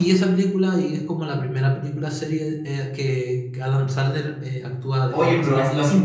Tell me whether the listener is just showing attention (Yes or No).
No